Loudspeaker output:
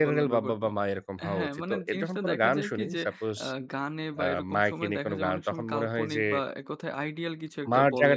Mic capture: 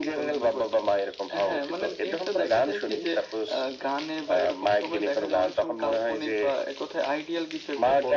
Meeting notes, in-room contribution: none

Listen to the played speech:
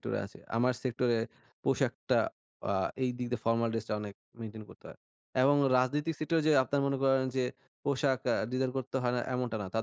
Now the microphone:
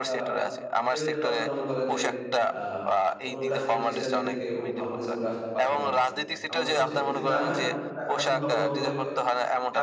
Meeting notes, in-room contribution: present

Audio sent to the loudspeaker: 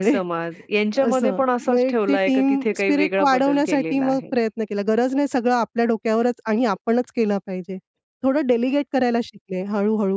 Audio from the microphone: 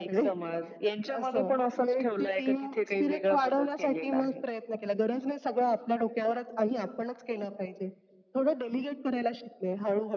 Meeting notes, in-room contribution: none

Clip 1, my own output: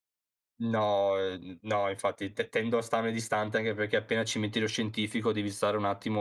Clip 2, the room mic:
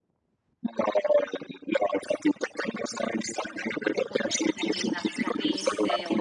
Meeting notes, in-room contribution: present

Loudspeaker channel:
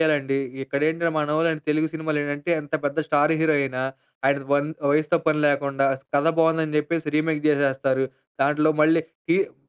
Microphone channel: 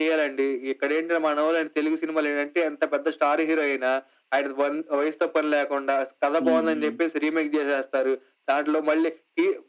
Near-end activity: present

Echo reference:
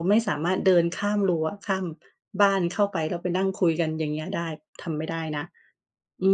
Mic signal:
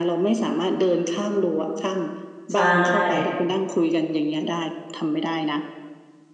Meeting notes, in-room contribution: present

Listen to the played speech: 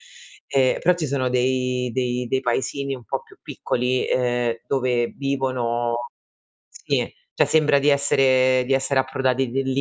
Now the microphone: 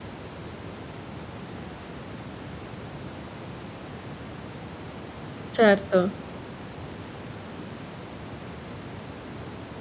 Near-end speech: present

